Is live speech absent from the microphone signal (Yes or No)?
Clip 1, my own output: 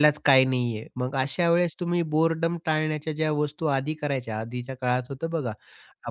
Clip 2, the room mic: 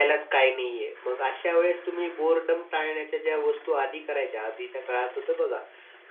Yes